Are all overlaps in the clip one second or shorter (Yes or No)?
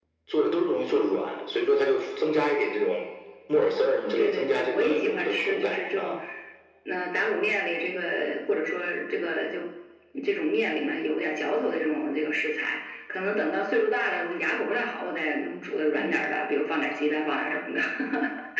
No